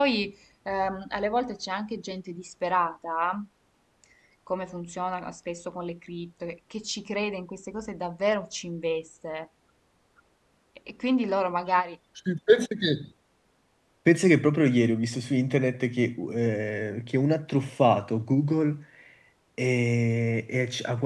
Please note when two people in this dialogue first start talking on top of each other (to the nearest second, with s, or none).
none